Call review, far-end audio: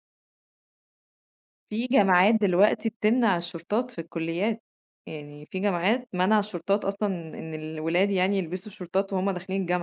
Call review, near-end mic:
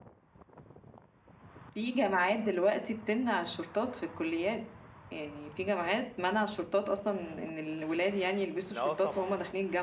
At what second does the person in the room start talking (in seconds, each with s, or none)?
8.8 s